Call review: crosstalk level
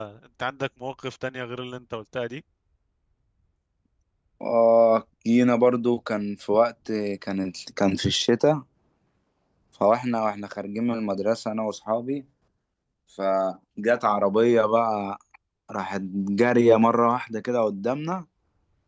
none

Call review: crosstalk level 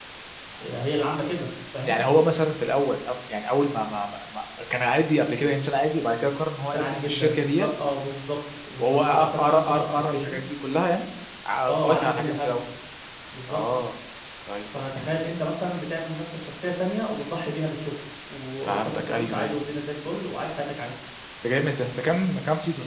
present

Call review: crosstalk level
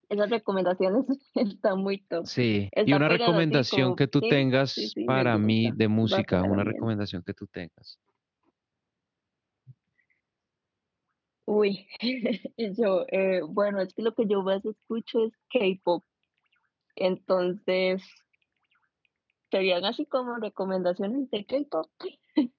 present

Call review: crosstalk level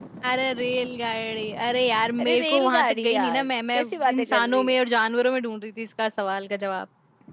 present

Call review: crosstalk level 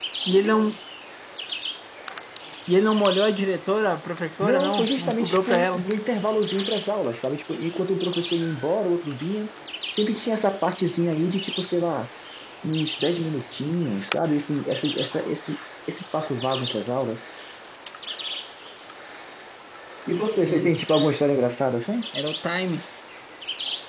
present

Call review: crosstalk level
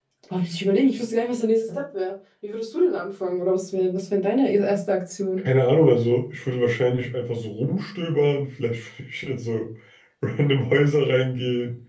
none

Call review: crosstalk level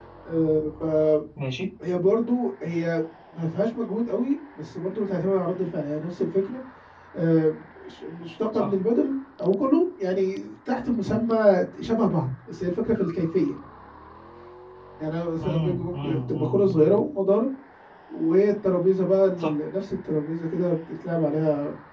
present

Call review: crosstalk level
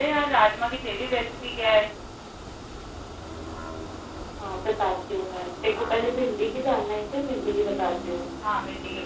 none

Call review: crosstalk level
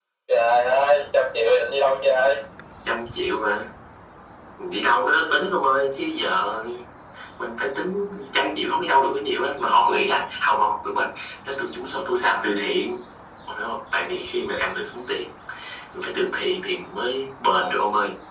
none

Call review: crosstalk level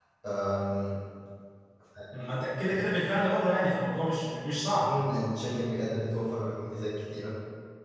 none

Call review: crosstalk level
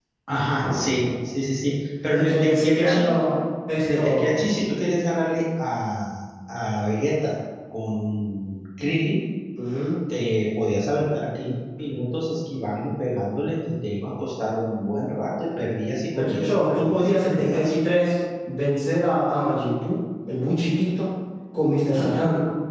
present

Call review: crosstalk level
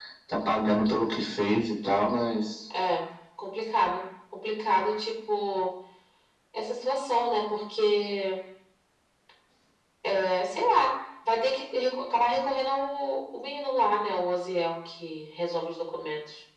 none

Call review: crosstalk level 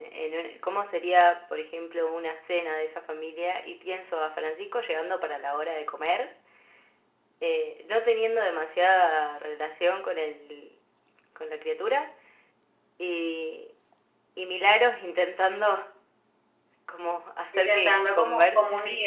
present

